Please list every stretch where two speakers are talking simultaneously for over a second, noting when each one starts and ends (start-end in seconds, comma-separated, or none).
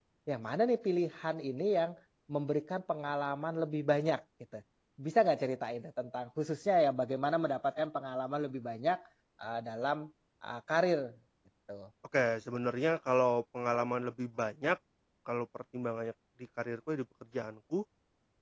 none